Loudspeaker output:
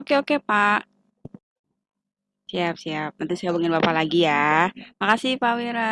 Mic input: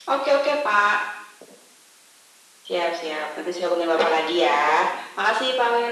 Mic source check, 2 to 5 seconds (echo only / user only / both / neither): echo only